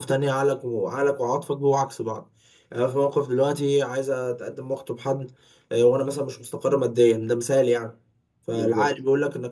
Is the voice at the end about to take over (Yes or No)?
No